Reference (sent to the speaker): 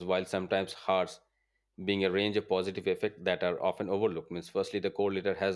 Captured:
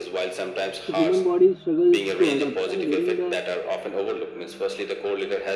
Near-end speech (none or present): present